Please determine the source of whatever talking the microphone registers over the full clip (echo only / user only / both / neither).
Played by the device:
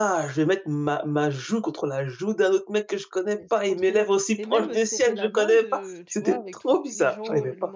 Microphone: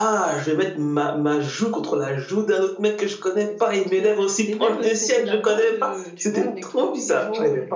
echo only